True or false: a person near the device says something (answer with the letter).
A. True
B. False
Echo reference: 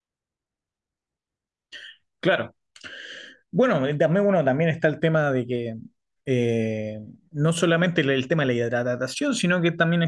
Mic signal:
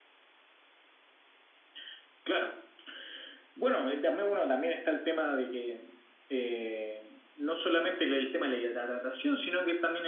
B